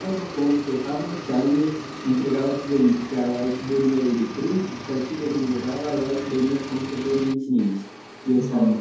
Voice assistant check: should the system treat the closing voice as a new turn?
No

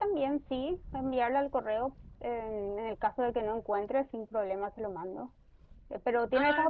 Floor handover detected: No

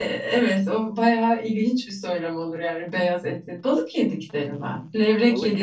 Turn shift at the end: No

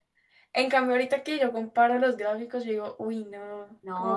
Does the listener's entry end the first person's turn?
Yes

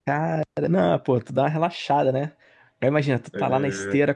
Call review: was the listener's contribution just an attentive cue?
Yes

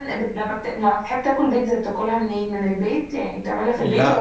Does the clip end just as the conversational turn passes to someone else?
Yes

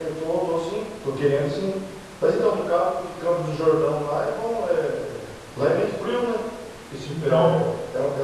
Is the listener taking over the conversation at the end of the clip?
No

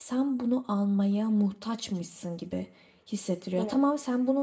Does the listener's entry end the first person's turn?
No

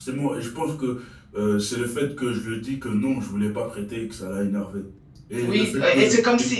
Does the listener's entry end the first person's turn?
Yes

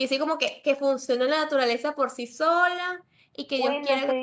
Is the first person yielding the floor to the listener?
Yes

